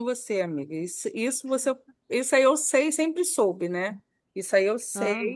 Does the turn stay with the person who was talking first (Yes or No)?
Yes